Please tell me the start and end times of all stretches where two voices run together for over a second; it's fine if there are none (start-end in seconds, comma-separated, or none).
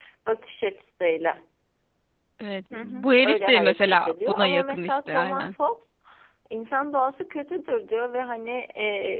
2.7-5.5